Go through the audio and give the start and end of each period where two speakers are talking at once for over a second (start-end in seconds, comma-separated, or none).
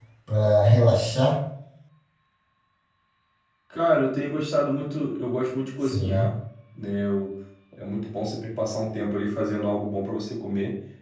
none